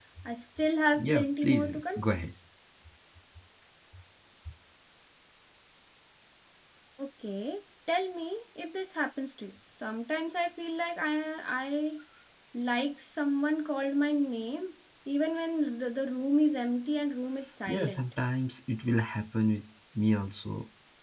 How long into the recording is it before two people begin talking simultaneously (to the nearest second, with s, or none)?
1 s